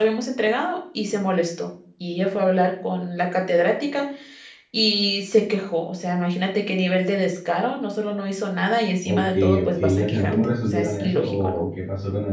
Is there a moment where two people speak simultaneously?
Yes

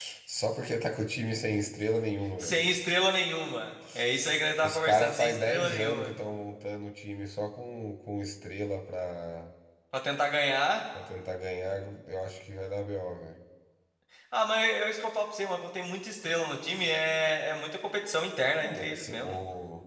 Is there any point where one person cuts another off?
Yes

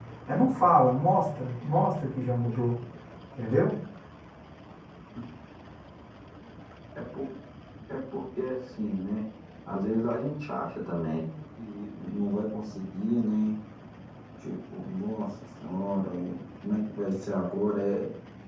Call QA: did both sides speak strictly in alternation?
Yes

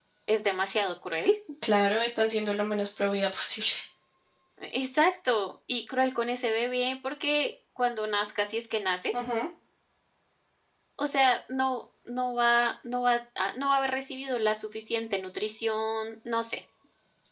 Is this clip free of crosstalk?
Yes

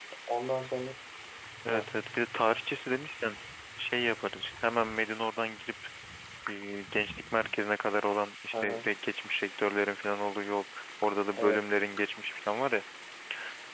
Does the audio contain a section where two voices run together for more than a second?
No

